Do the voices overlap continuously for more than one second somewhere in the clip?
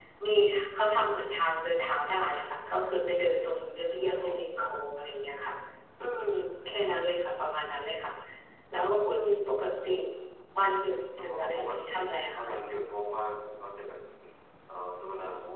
Yes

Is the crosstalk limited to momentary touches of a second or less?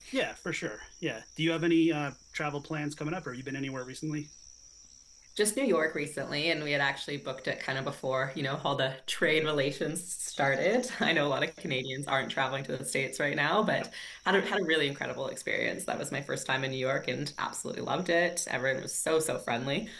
Yes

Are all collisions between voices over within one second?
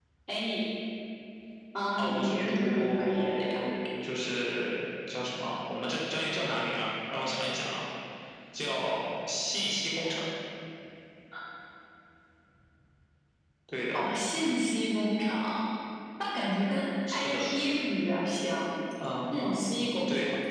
No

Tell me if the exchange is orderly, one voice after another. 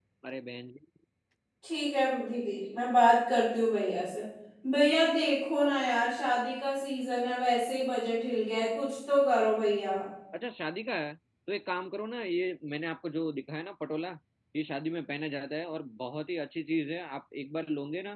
Yes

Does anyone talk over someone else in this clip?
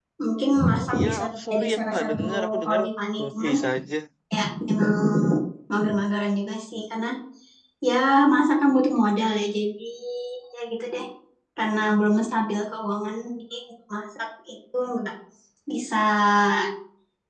Yes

